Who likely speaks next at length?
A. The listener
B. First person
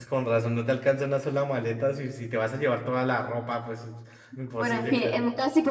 A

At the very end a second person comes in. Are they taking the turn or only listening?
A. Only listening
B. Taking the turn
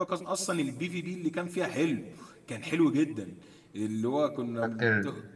A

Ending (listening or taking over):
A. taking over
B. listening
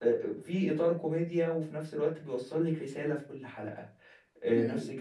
B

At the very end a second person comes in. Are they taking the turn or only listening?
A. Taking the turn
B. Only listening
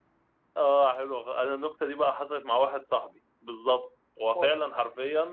B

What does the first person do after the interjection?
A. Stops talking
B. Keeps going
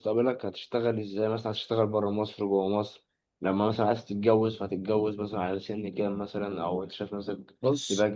A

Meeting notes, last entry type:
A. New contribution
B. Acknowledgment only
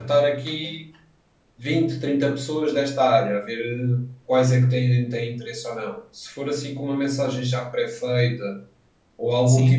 B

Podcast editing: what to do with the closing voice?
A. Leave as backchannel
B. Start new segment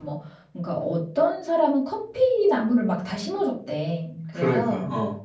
A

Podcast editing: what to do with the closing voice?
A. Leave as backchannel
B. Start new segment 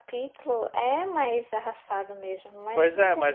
B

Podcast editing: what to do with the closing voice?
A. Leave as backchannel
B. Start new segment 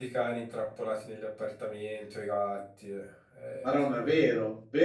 B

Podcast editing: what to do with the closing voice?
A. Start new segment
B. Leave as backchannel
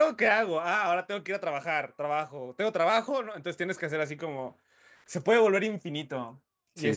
B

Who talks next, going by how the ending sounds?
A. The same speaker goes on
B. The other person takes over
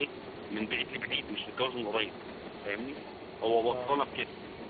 A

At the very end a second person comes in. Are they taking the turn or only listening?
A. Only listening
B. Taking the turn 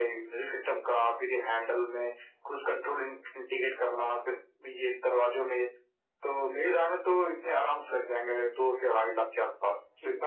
B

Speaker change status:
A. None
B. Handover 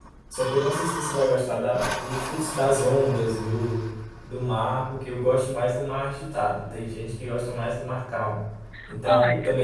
A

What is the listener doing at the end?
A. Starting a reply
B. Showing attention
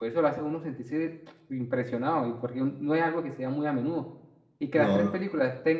B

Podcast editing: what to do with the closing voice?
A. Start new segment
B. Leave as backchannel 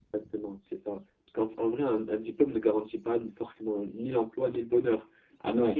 B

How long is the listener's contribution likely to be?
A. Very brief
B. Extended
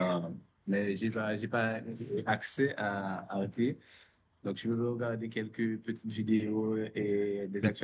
A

